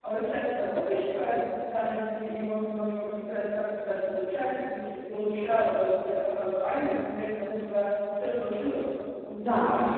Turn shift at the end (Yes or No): Yes